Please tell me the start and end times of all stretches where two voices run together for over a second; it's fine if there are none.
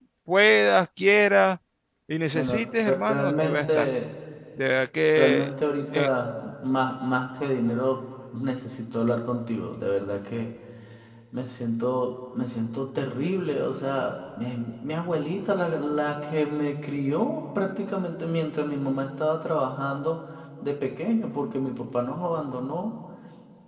2.3-3.9

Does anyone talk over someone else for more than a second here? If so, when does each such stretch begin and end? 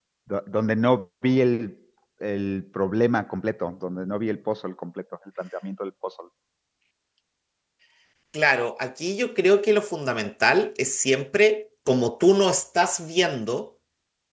none

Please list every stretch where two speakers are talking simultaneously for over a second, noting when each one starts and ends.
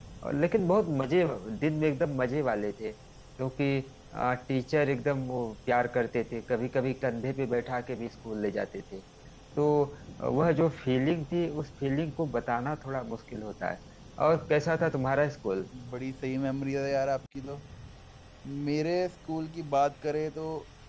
none

